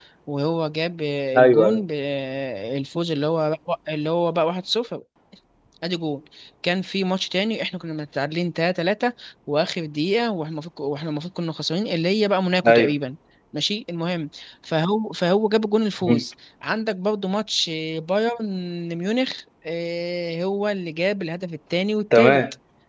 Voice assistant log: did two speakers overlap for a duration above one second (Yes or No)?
No